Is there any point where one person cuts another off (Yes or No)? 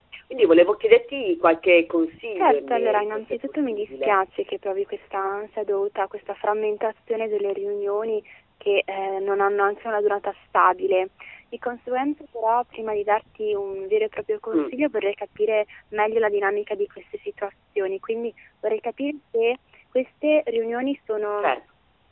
Yes